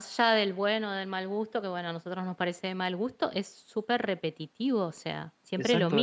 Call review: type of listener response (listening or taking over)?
taking over